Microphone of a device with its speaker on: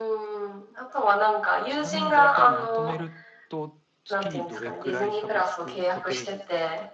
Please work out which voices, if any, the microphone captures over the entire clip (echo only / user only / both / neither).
both